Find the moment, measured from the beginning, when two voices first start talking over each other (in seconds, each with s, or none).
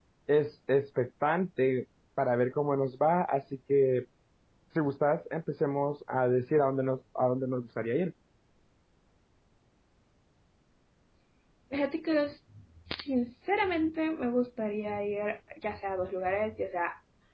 none